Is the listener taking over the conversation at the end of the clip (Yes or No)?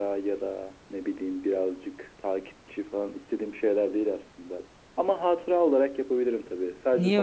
Yes